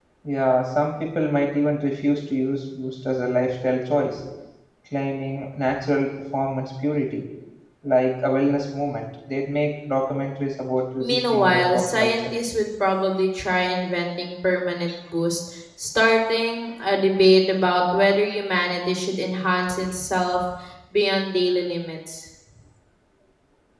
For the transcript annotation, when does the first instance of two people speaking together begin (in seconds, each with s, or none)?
11.0 s